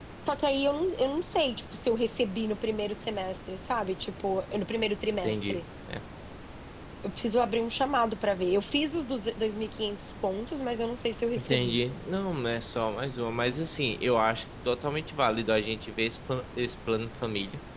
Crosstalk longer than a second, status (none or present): none